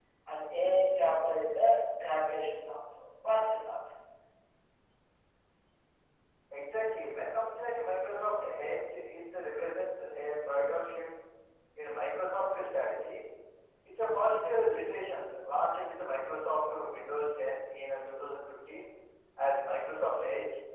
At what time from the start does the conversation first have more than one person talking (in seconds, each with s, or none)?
none